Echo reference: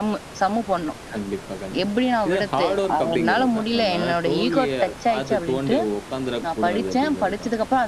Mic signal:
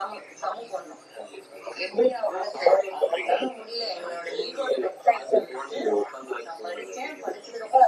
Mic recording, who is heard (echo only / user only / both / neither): echo only